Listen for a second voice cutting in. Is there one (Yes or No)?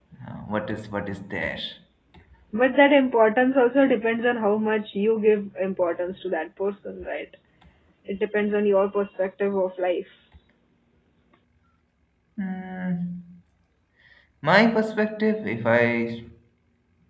No